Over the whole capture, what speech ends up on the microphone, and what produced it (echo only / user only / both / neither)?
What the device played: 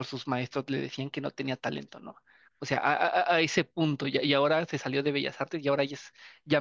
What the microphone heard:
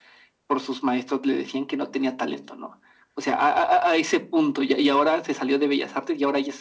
echo only